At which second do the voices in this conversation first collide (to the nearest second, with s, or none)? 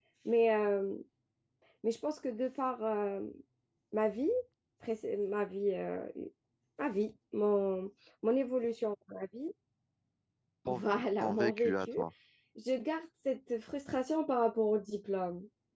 11 s